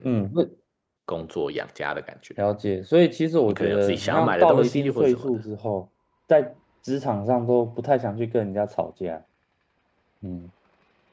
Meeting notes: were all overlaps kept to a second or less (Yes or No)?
No